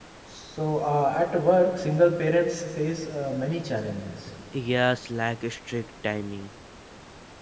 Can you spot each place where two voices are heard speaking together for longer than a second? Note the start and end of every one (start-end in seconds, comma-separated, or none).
none